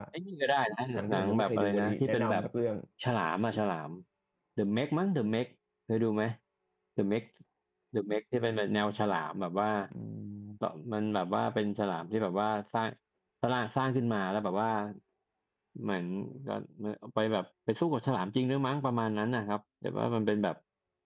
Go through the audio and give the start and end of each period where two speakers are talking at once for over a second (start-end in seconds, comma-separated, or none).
1.0-2.4